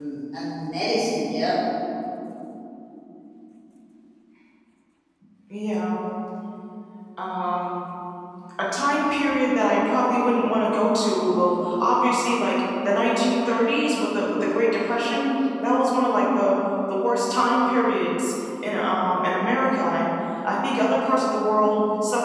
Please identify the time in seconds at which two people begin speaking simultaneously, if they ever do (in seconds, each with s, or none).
none